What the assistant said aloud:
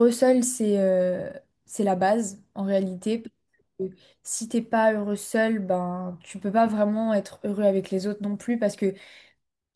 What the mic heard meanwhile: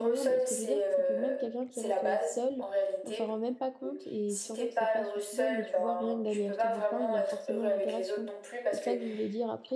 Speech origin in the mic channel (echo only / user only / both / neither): both